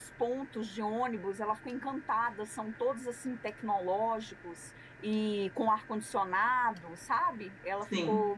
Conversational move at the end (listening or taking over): listening